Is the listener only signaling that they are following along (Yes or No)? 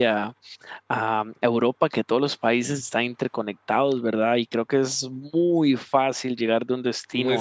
Yes